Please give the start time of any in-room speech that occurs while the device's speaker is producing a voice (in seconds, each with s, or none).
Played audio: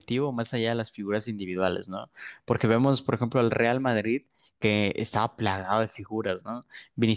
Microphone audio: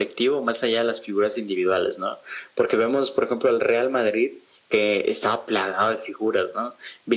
none